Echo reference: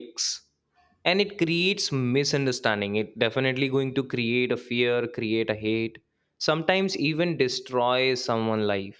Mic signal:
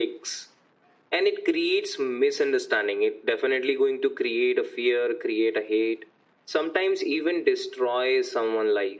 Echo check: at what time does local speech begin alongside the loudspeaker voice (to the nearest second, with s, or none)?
none